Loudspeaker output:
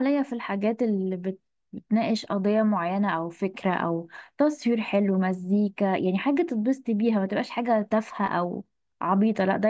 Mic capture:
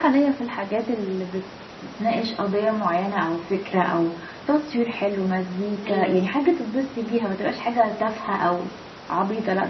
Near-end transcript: ايوه بس.

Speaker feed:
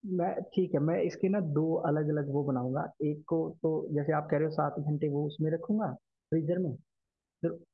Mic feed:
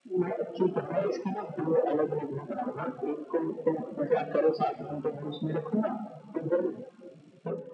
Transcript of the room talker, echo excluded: none

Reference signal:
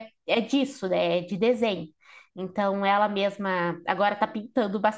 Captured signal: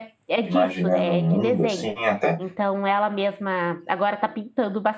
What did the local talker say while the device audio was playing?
imaginando um mundo assim, até.

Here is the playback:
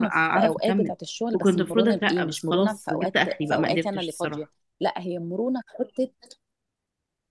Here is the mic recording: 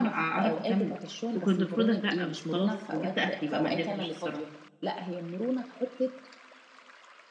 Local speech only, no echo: none

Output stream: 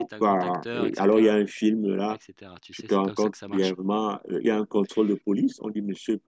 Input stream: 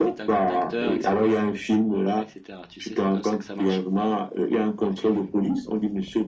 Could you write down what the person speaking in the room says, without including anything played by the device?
none

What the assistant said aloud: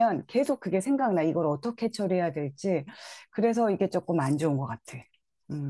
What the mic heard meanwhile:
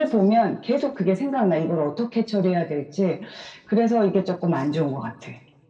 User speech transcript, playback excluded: none

